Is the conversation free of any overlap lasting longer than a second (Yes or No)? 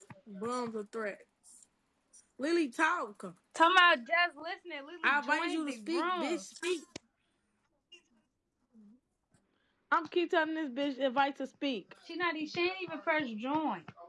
No